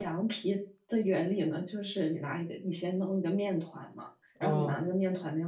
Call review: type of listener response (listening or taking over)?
listening